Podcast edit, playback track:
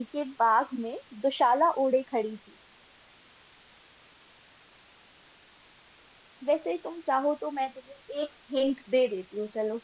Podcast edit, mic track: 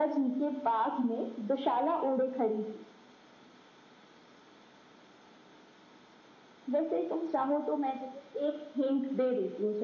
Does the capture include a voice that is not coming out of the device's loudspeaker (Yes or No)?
No